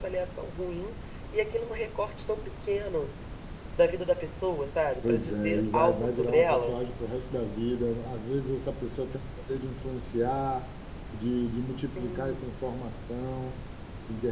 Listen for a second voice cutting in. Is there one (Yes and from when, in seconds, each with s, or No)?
Yes, from 5.1 s